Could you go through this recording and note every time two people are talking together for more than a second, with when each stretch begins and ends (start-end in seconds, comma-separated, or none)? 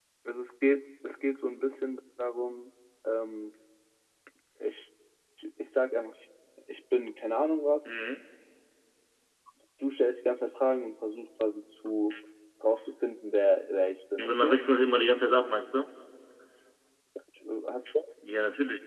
none